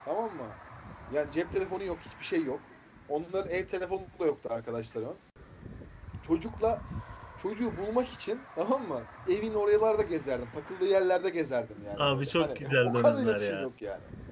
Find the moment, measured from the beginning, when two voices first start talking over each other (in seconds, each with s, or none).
12.0 s